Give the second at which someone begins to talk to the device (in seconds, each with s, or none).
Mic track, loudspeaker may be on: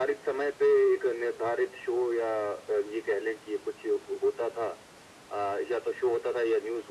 none